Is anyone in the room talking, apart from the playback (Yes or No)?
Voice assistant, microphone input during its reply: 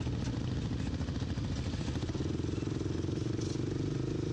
No